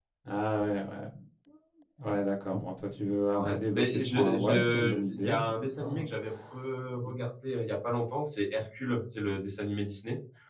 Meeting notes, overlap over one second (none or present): present